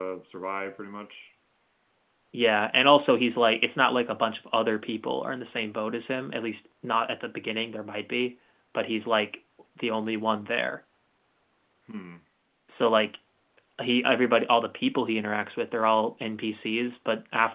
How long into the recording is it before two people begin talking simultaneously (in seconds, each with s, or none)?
none